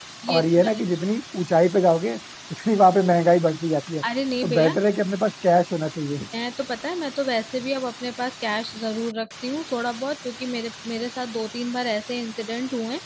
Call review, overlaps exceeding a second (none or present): none